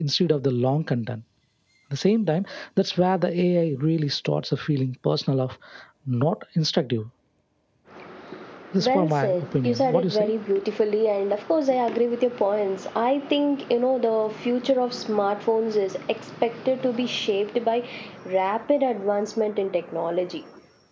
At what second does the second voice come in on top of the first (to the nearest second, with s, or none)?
9 s